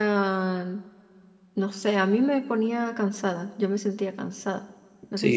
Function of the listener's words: taking over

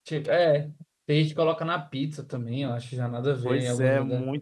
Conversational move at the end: taking over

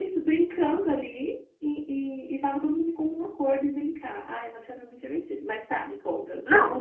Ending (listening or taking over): taking over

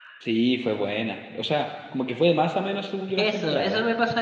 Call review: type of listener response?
taking over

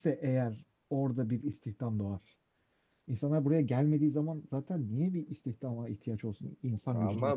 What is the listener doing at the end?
taking over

